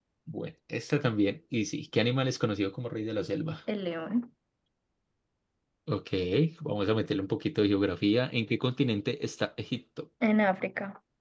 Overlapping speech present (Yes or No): No